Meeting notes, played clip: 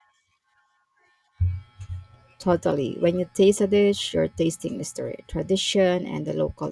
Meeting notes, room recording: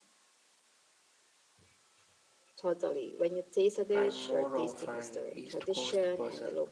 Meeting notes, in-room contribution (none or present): present